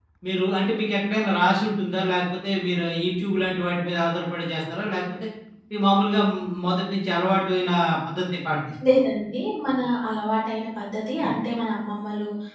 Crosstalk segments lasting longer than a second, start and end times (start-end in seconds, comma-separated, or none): none